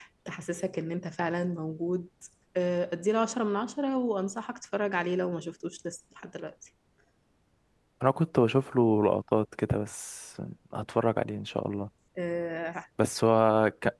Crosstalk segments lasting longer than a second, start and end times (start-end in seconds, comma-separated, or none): none